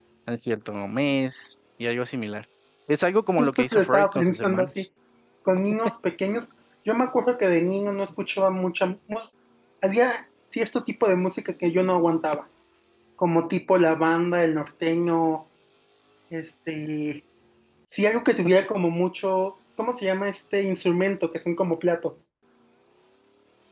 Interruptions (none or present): present